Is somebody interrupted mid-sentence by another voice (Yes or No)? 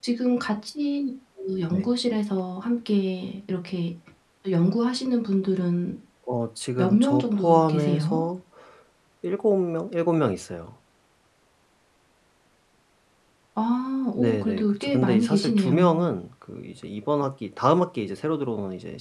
Yes